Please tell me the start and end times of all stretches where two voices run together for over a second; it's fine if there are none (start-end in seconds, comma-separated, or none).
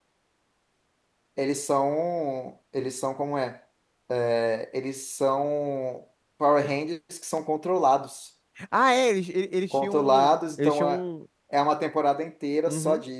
9.7-11.0